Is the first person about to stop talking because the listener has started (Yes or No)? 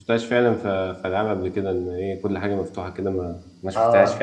Yes